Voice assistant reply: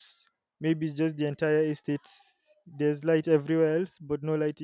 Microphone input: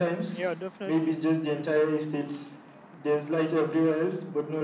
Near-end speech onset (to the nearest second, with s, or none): 0 s